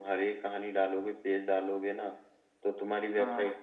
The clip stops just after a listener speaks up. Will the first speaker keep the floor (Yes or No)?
Yes